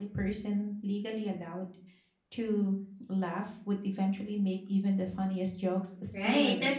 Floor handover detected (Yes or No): Yes